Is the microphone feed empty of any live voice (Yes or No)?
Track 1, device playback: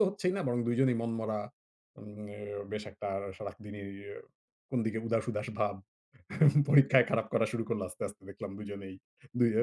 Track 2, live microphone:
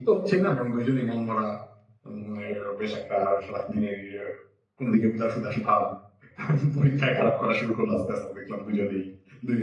Yes